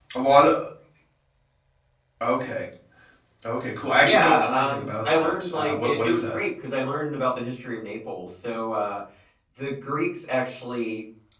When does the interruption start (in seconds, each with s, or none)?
4.0 s